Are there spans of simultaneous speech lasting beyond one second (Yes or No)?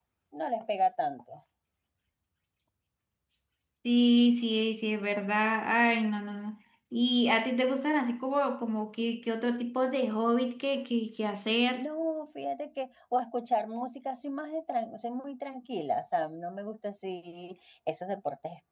No